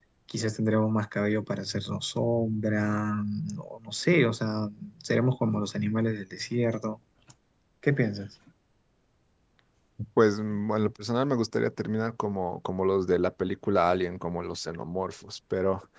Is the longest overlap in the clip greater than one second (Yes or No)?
No